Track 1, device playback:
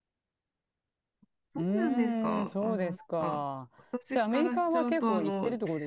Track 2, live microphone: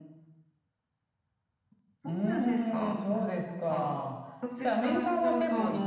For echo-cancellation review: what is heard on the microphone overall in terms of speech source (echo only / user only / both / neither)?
echo only